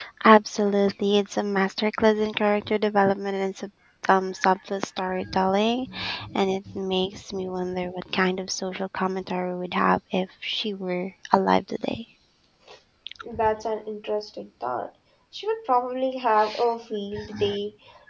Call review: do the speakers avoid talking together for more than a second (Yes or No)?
Yes